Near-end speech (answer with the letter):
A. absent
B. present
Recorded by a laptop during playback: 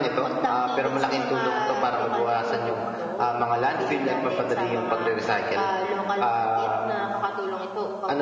A